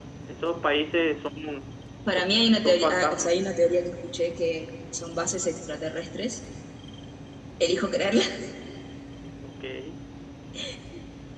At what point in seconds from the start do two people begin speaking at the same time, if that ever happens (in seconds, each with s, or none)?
2.1 s